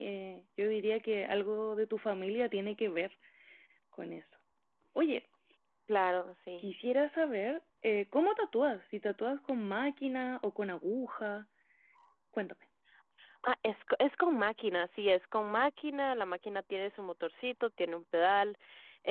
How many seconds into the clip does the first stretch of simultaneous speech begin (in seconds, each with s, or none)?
none